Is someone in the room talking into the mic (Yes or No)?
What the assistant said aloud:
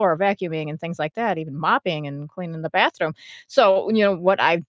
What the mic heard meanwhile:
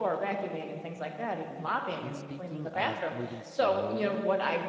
Yes